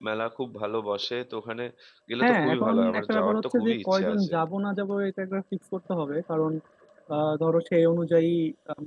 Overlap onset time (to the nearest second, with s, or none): 2 s